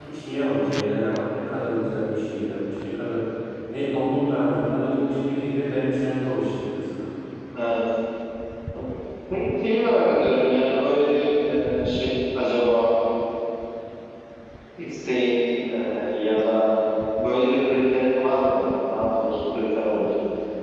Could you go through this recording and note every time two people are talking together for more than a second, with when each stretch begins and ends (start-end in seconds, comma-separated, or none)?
none